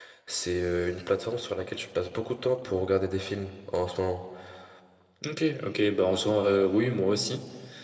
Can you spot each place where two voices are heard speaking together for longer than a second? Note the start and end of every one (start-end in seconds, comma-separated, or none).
none